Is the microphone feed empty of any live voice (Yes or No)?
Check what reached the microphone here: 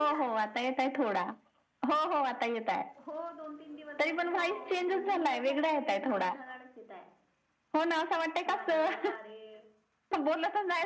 No